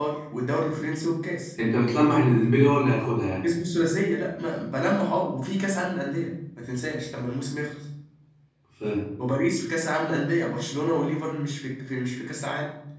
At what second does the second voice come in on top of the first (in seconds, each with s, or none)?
none